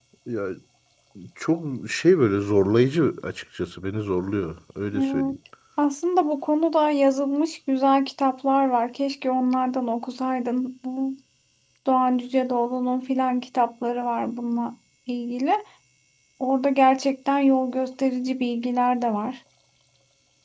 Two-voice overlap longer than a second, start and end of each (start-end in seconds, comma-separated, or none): none